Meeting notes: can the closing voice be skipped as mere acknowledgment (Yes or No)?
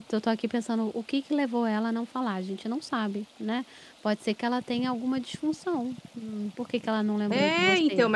No